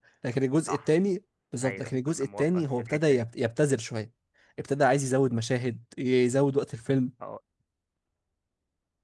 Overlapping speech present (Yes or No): Yes